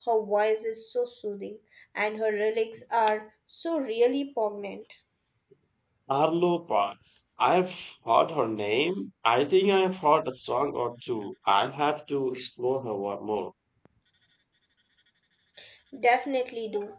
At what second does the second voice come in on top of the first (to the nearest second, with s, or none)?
none